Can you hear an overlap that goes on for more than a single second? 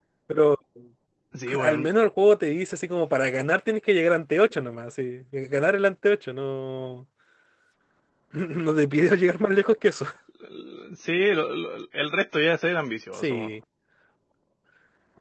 No

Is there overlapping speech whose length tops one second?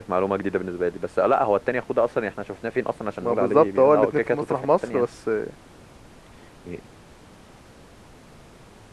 Yes, from 3.2 s

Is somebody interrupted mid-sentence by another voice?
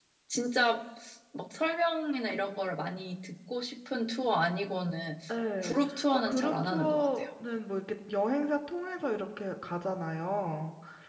Yes, from 5.6 s

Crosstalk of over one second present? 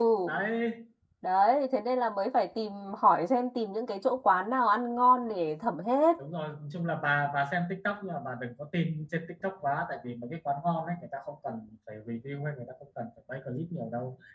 No

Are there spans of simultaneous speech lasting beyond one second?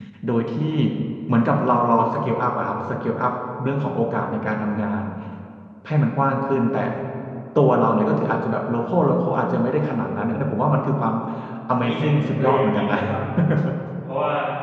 Yes, from 11.7 s

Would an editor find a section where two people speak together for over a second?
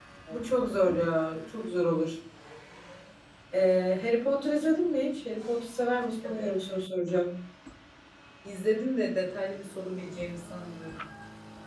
No

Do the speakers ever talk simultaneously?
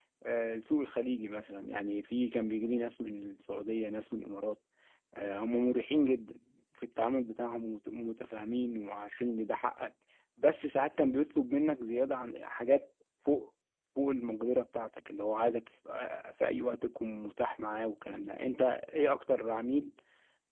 No

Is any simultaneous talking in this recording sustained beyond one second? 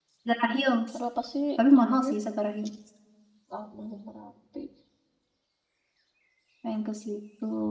No

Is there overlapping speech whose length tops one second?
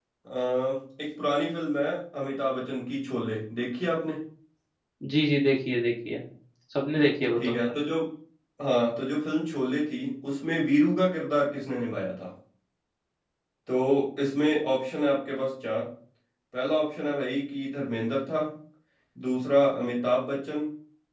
No

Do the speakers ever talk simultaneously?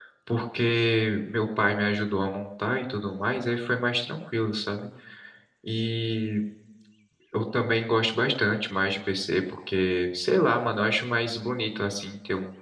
No

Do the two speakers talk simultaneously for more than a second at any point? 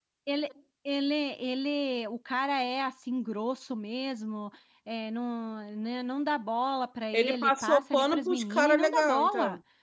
Yes, from 7.1 s

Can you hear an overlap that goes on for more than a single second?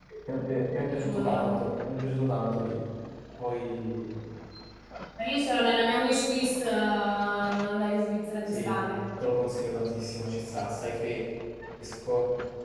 No

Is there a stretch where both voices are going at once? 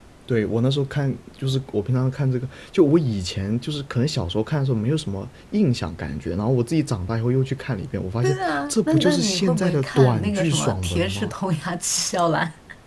Yes, from 8.2 s

